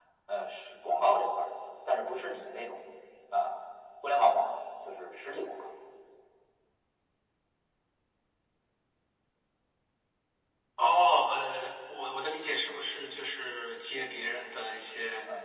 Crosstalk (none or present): none